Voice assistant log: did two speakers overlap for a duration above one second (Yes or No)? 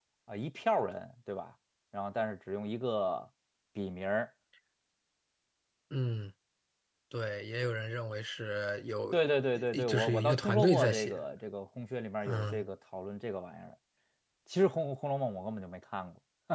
Yes